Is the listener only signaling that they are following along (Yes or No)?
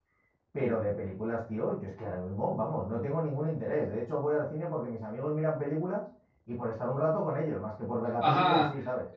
No